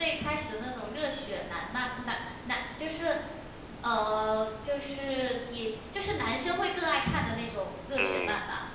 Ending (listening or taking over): taking over